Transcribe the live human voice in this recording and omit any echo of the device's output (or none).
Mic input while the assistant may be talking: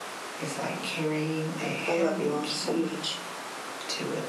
I love you all so much.